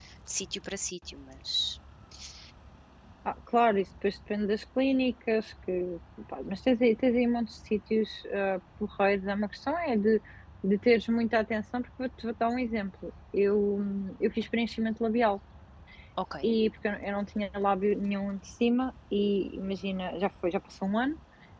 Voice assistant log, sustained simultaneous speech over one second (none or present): none